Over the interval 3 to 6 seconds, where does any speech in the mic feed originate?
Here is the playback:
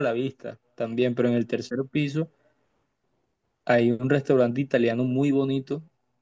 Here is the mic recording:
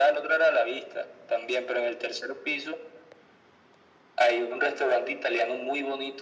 echo only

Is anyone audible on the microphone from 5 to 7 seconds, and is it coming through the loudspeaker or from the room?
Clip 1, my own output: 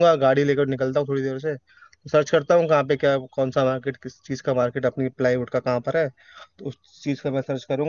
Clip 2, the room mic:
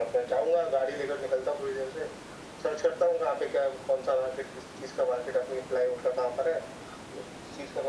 echo only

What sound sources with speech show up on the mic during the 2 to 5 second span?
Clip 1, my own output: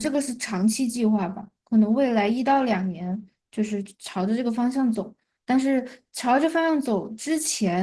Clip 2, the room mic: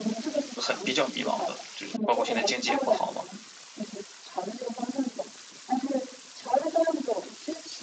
both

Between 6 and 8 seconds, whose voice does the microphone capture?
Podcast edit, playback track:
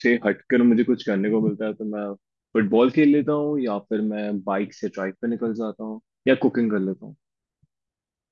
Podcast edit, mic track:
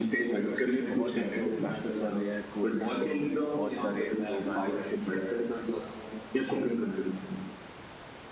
echo only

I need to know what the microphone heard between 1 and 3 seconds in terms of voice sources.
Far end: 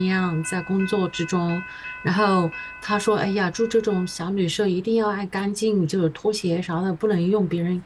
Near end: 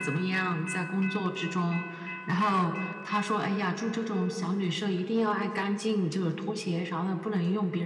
echo only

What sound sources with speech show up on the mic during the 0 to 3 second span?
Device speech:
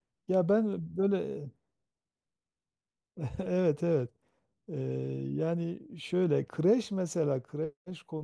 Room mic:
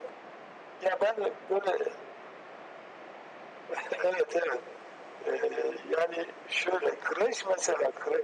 echo only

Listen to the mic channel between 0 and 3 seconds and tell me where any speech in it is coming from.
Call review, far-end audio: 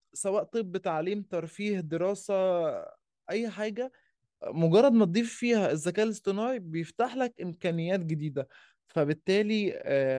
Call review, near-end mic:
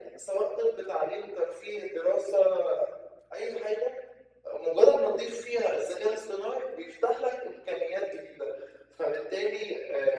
echo only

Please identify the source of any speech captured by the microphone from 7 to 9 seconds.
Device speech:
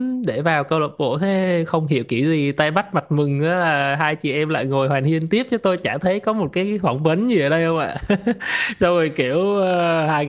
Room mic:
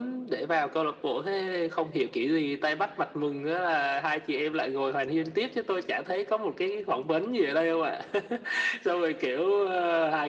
echo only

